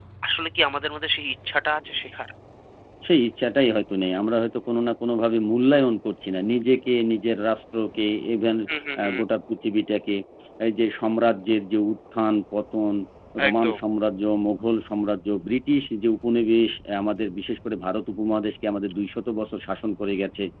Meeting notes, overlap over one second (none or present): none